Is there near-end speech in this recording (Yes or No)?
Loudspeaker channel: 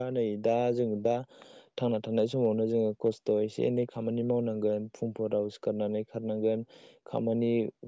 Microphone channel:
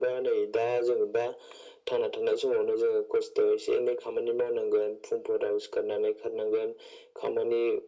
No